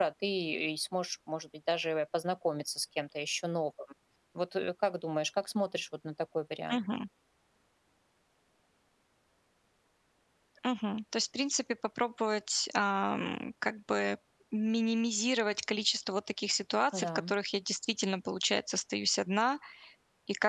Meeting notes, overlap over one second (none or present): none